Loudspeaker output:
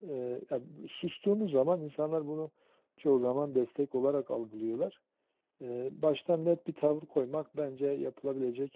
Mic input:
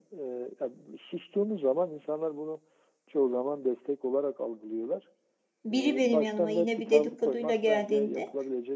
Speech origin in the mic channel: both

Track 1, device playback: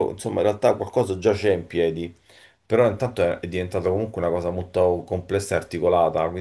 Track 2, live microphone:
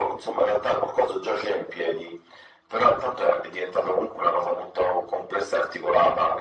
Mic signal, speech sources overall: echo only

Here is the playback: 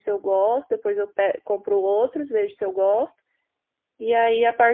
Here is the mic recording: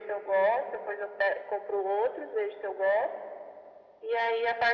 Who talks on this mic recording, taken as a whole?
echo only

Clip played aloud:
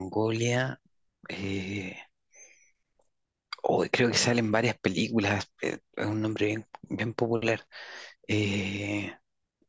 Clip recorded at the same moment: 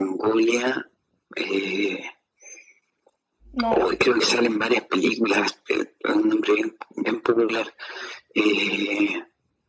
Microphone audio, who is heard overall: both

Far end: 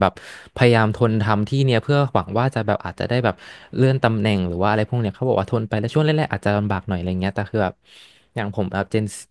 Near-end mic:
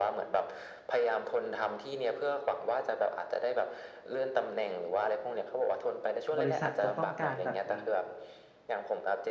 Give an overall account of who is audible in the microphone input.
both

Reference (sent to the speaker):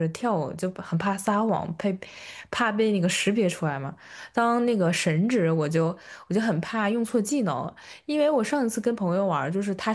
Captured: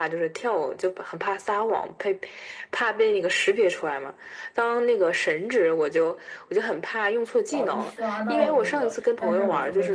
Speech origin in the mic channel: both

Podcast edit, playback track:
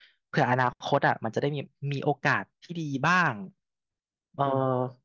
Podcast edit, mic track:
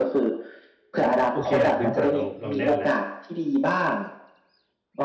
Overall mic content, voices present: both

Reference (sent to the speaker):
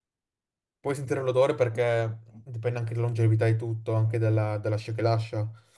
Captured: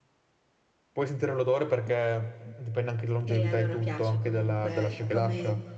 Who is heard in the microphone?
both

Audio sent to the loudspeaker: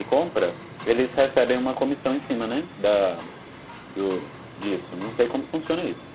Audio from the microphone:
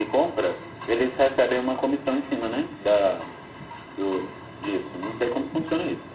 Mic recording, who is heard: echo only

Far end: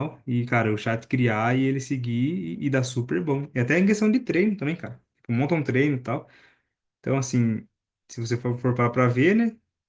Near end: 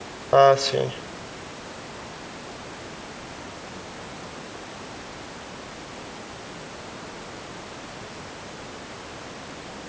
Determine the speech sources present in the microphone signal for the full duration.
user only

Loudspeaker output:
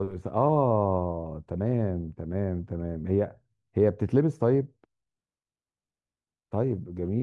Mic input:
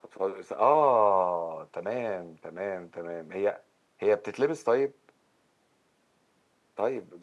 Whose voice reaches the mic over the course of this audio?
echo only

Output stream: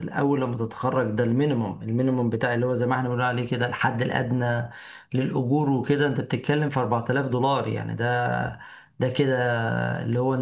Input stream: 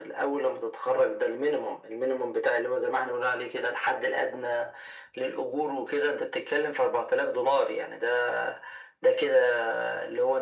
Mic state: echo only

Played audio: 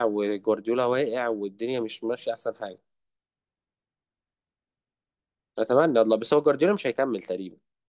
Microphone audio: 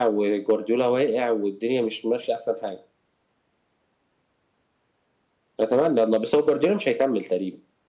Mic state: echo only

